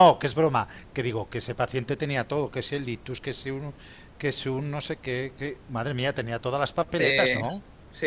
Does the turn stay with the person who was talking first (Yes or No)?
No